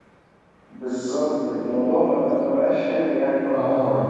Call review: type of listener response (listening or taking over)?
listening